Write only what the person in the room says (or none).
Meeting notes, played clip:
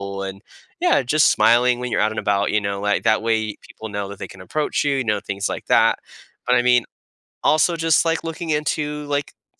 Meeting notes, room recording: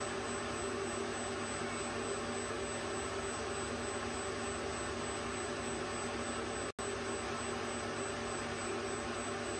none